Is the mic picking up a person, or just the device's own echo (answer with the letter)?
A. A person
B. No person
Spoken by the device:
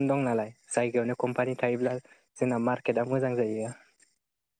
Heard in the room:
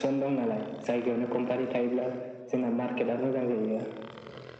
B